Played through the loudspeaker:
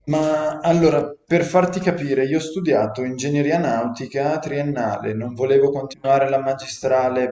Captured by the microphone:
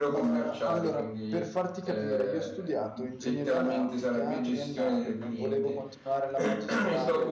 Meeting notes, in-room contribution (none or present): present